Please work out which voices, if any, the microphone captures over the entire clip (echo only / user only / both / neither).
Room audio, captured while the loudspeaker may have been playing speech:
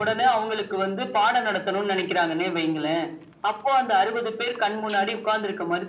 echo only